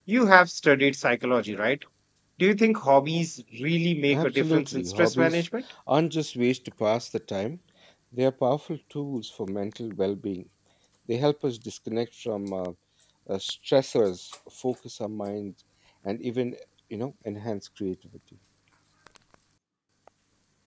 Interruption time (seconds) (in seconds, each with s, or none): 4.1 s